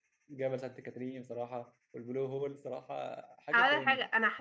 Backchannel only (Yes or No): No